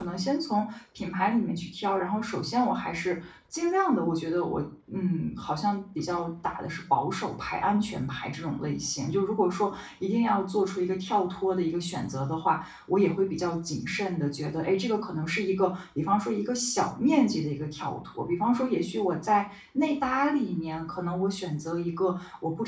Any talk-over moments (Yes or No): No